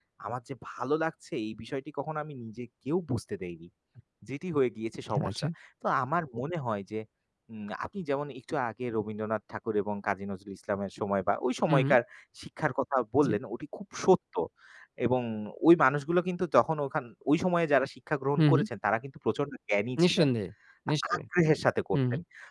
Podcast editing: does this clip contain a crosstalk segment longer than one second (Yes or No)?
No